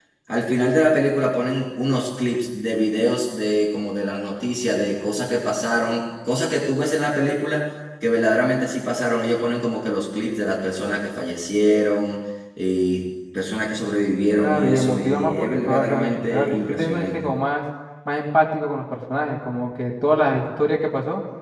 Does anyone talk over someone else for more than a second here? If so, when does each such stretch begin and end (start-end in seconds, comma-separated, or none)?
14.4-17.3